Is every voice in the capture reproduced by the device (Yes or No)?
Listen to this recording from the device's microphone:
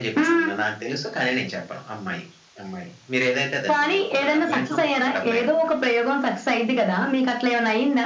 Yes